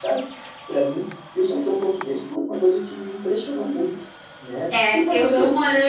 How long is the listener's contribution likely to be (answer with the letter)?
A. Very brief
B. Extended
B